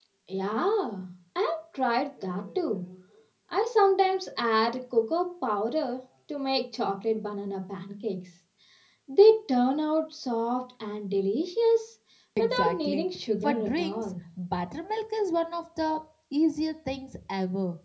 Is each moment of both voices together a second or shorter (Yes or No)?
No